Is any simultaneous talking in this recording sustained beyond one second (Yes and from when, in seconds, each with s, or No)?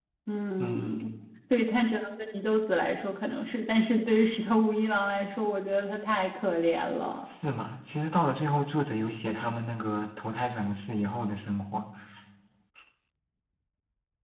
No